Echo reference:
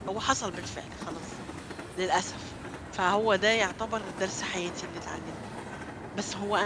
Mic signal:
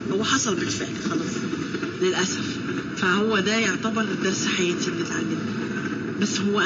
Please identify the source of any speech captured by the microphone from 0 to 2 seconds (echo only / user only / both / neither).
echo only